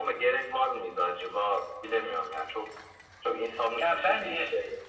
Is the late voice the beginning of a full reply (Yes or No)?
Yes